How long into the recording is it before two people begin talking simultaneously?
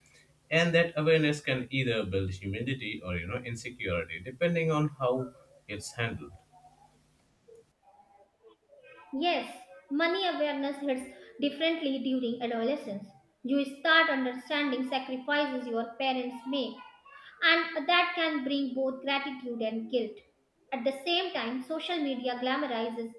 none

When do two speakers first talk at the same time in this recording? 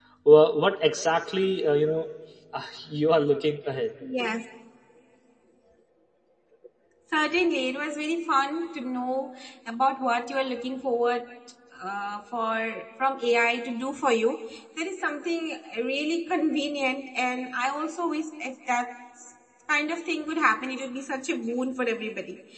none

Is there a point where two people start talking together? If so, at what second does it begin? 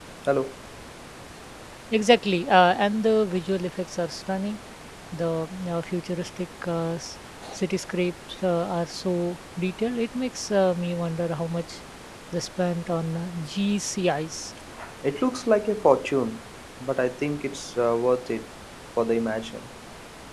none

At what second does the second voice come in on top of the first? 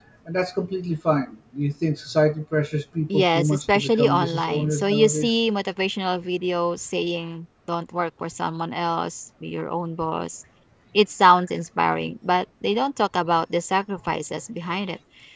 3.1 s

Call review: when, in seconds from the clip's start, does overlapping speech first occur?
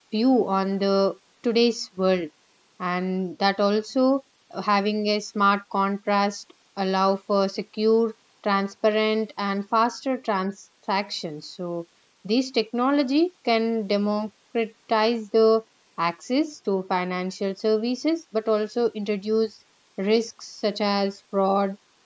none

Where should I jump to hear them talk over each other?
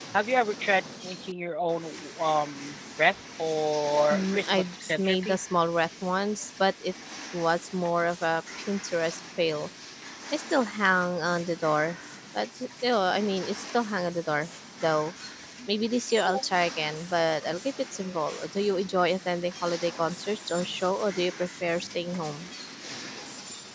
4.1 s

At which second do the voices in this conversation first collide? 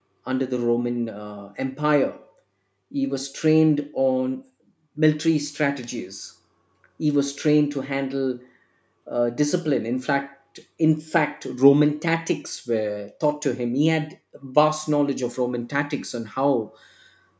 none

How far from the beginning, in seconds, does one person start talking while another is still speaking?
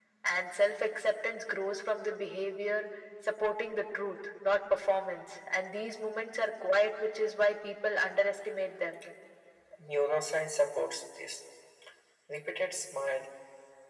none

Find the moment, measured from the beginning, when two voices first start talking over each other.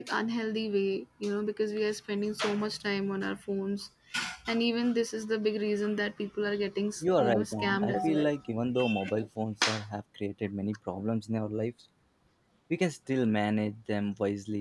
7.0 s

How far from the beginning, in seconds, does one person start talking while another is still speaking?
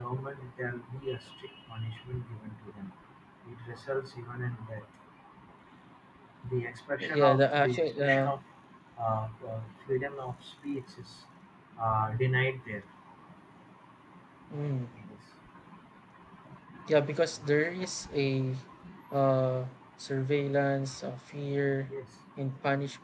7.0 s

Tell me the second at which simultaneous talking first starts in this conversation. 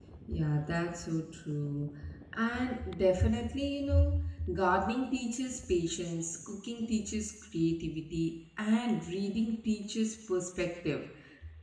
none

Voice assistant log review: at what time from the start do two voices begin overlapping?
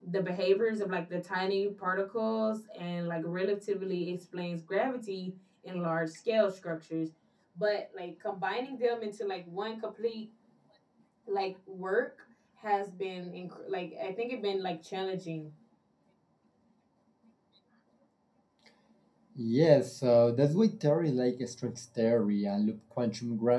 none

